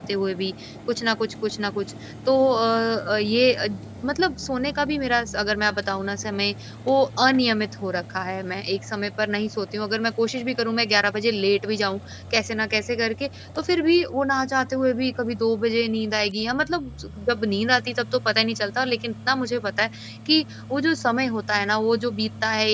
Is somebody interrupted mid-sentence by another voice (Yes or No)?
No